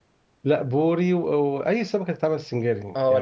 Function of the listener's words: taking over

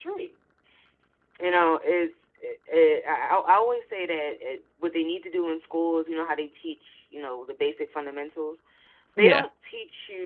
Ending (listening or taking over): listening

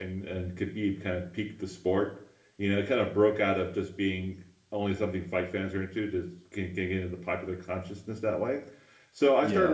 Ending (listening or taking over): listening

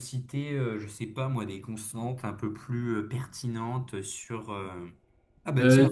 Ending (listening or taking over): listening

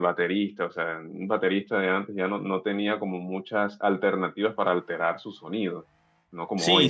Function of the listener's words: taking over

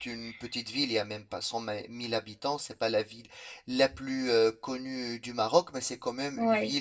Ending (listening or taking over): listening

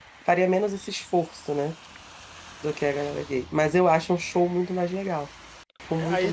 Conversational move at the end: taking over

